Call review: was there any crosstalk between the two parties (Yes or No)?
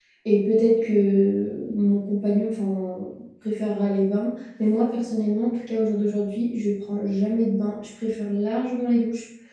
No